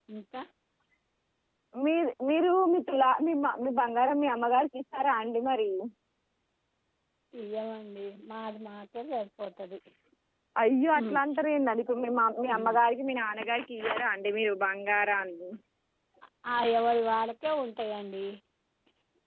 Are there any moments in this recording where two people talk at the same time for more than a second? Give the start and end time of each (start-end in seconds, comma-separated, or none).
none